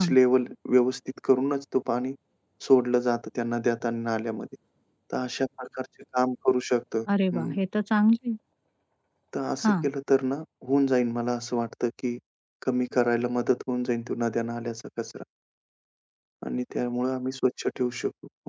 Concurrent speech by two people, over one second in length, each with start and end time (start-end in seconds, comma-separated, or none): none